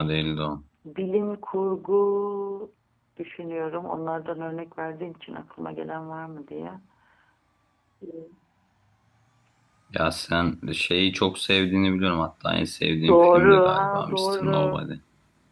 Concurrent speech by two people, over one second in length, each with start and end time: 13.1-14.8

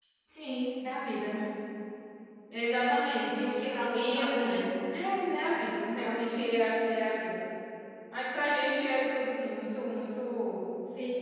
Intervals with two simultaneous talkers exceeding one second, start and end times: 3.4-4.7

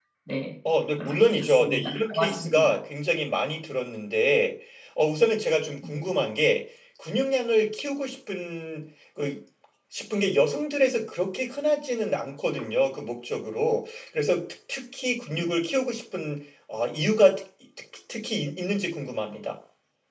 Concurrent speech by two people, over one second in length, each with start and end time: 1.0-2.8

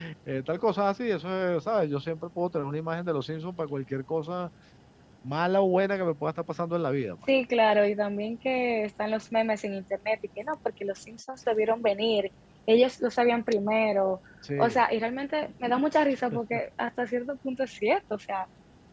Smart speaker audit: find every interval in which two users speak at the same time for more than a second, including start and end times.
none

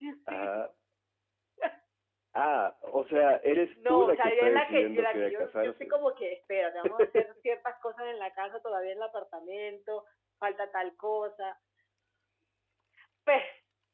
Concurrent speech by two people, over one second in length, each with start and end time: 3.7-5.9

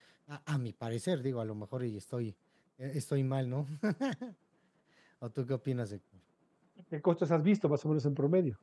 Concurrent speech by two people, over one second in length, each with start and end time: none

